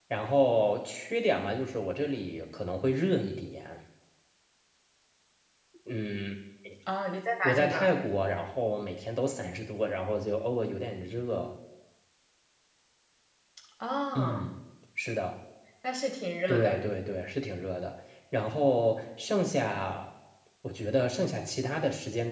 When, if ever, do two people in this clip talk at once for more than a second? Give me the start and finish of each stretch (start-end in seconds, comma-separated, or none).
none